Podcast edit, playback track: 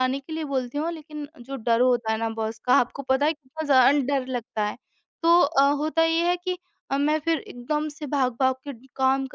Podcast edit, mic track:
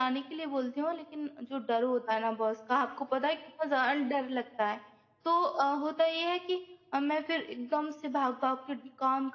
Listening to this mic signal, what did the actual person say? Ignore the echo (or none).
none